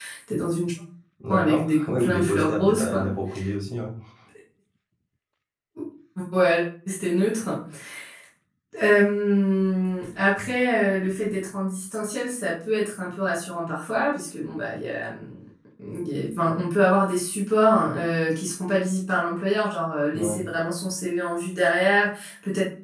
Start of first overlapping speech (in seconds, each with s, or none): 1.3 s